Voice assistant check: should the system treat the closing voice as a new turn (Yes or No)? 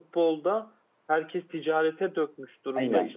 No